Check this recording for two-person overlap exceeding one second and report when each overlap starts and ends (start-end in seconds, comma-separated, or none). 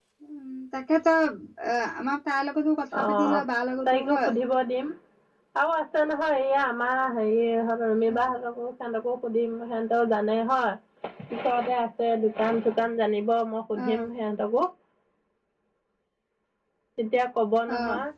none